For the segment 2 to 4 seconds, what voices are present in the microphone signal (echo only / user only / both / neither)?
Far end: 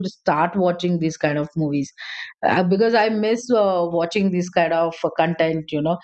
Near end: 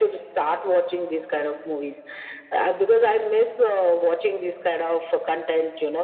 echo only